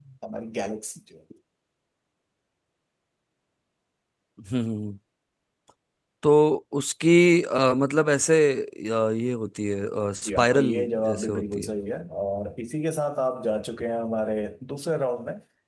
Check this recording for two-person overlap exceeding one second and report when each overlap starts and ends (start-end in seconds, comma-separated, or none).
10.2-11.7